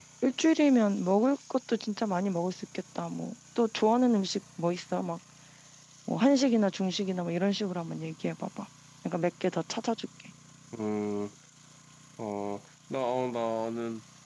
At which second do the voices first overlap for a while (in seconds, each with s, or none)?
none